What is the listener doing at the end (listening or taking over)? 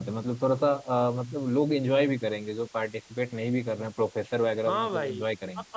taking over